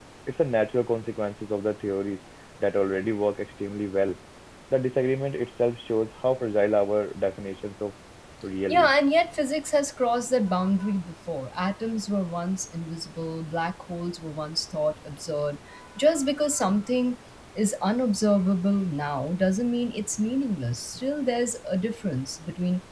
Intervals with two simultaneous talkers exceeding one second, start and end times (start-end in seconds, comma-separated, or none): none